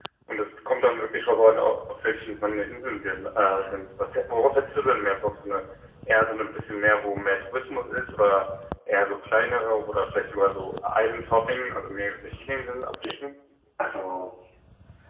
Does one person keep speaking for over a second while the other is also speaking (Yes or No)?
No